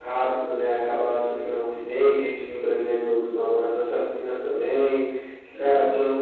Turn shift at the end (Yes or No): No